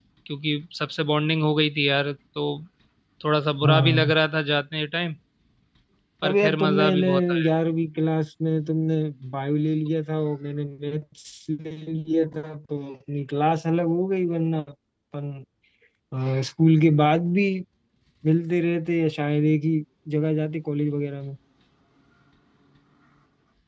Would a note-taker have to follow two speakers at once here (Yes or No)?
Yes